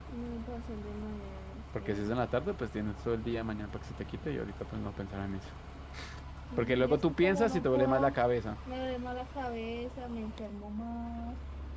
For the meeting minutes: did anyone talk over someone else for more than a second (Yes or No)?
Yes